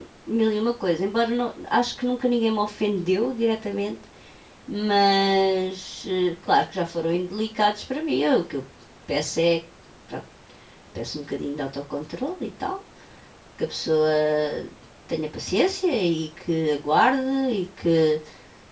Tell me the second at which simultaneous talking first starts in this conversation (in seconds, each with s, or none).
none